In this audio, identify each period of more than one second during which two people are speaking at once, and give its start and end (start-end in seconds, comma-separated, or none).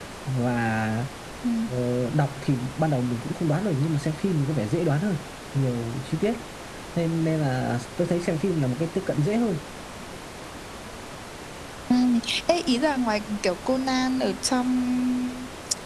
none